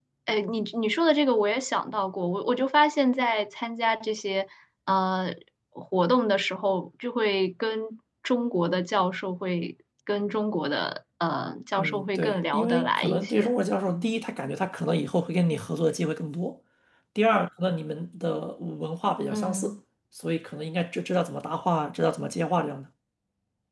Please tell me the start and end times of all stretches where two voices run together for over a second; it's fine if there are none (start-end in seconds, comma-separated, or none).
11.8-13.5